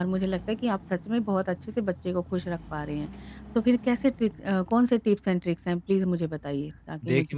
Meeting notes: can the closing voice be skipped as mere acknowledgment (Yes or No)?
No